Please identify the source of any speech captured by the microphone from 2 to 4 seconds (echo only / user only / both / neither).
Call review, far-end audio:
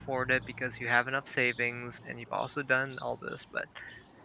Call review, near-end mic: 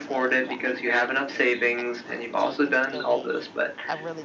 both